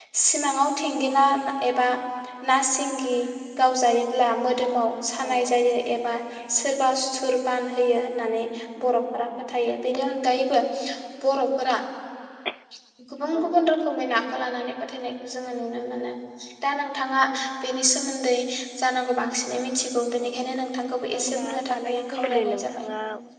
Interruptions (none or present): present